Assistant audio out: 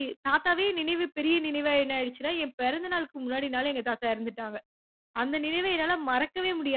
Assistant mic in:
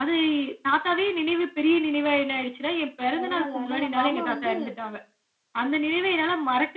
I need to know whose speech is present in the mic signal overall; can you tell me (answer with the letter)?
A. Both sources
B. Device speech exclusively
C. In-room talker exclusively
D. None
A